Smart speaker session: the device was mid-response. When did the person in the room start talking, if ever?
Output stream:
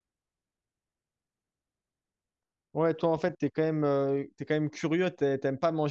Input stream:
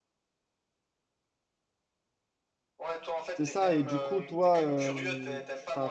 3.4 s

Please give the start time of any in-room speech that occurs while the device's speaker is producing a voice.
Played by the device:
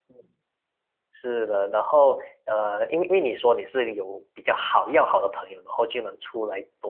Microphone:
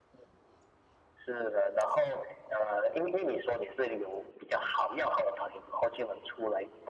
none

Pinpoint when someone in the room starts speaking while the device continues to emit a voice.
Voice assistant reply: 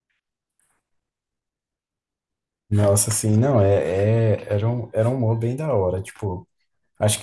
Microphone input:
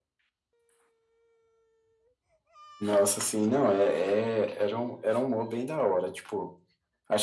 none

